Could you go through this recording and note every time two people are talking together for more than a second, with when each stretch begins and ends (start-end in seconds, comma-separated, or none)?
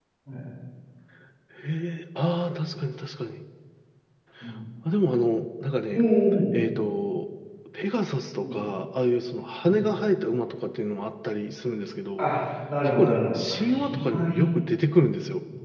13.0-14.4